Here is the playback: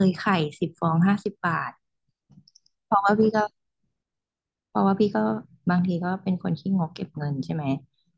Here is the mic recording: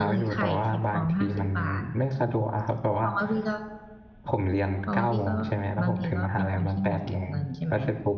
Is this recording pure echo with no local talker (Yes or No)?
No